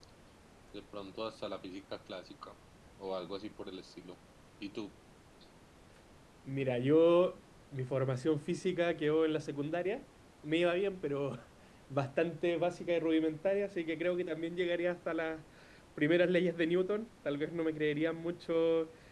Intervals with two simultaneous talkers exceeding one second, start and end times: none

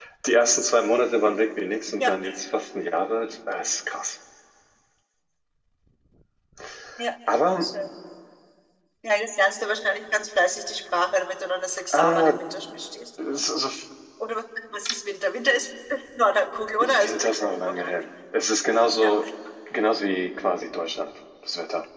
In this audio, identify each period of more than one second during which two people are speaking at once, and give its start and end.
16.8-18.1

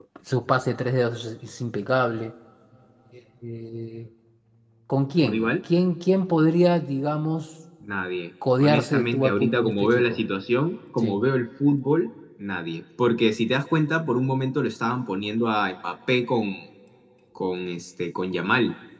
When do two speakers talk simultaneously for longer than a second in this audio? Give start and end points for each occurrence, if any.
8.6-10.2

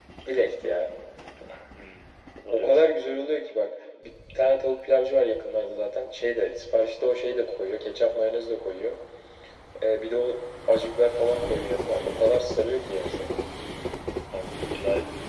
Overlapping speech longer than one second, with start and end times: none

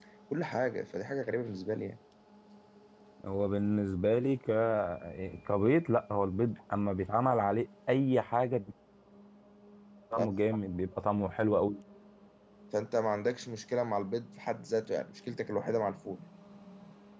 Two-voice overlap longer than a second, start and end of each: none

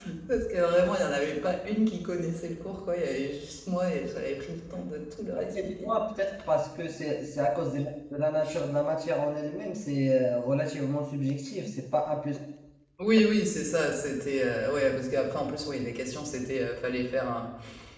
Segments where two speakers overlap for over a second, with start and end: none

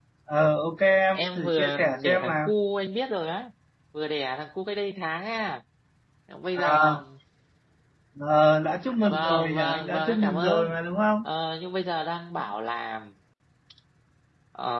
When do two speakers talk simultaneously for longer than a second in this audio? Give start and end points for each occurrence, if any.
1.1-2.5, 9.1-10.8

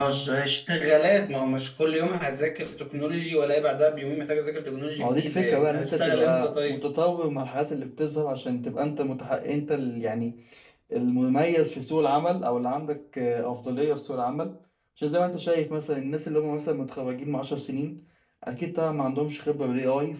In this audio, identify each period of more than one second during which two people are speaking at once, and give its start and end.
5.0-6.8

